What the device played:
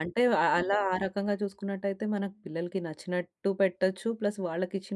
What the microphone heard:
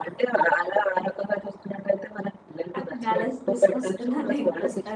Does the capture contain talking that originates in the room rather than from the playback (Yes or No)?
Yes